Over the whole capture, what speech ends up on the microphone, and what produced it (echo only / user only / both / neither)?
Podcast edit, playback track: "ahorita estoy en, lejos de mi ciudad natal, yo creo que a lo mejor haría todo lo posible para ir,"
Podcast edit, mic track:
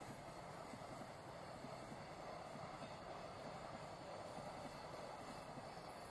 neither